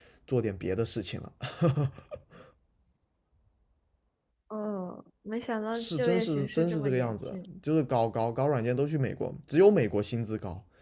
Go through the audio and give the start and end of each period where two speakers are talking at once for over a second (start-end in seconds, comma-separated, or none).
5.7-7.5